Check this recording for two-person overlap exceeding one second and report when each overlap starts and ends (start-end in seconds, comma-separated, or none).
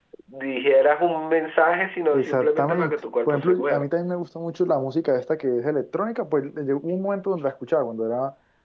2.1-3.9